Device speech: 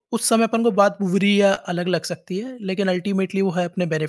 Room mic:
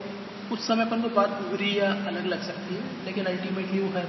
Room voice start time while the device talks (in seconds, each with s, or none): none